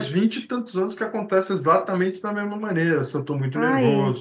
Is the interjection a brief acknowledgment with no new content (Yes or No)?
Yes